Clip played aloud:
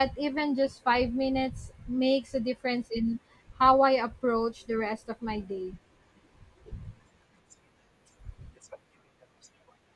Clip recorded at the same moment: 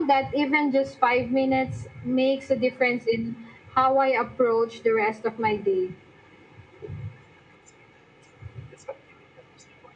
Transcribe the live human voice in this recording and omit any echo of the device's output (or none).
none